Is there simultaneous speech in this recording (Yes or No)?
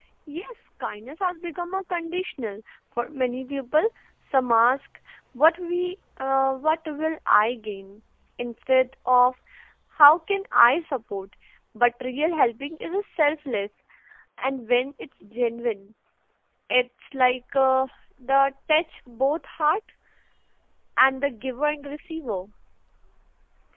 No